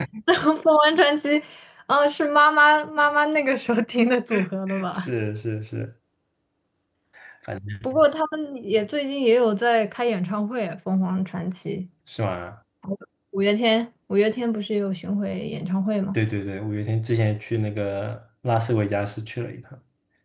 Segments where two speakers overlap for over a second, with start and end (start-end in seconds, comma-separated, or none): none